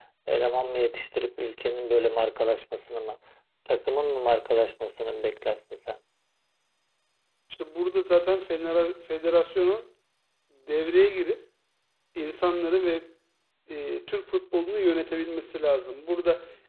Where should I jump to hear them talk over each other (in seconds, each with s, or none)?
none